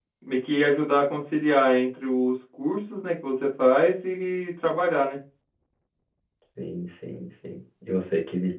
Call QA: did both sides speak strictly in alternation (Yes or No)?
Yes